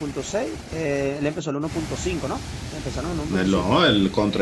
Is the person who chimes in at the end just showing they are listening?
No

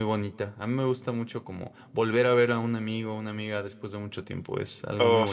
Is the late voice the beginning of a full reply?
Yes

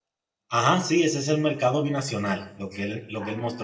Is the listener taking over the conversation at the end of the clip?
No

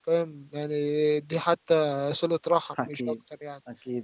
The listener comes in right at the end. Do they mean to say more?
Yes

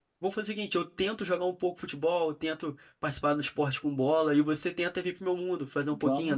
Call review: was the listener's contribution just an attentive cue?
No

